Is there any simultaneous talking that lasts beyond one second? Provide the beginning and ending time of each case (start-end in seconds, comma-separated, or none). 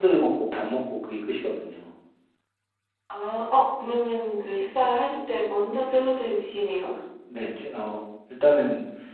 none